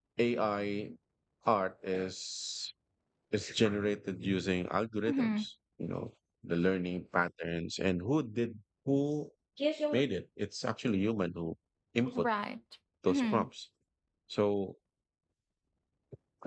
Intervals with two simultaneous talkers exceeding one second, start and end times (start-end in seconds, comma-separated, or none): none